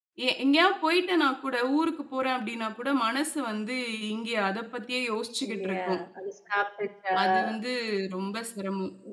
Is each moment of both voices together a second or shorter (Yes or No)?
Yes